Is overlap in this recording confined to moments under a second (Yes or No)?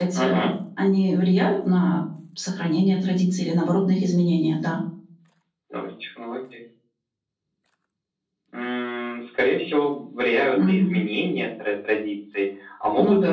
Yes